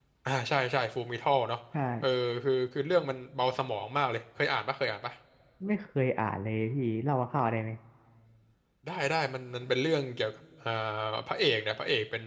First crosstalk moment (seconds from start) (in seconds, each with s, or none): none